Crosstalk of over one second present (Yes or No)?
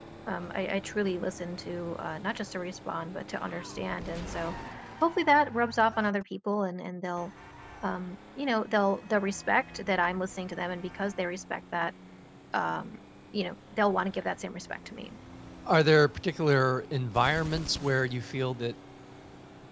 No